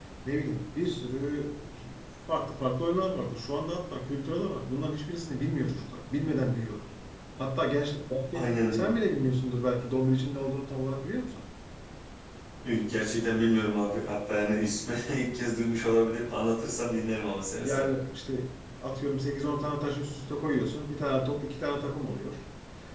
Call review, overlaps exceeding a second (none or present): none